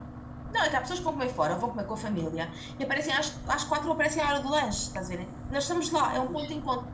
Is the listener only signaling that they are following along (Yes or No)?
Yes